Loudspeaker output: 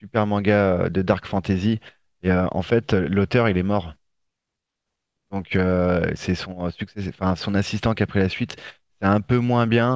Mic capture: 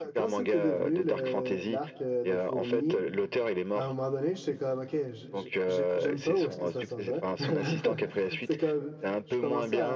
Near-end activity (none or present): present